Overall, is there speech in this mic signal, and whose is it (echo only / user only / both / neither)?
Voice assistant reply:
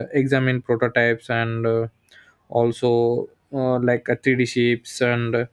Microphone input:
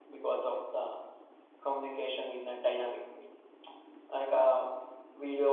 user only